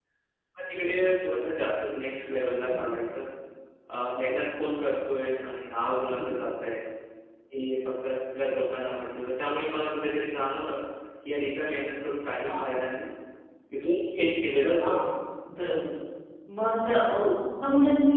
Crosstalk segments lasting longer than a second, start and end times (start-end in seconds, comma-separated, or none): none